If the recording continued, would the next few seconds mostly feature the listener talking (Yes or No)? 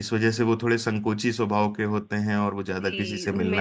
Yes